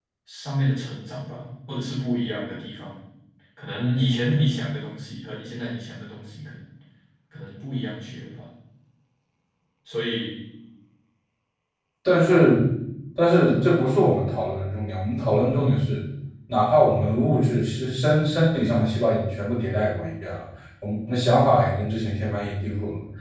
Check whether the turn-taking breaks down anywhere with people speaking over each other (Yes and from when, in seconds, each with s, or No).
No